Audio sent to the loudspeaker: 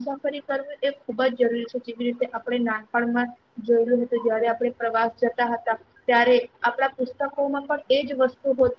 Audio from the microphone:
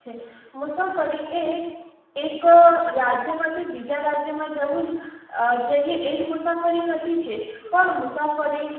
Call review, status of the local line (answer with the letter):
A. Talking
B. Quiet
A